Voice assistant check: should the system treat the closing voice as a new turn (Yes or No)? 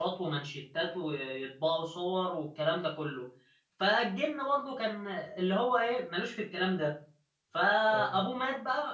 No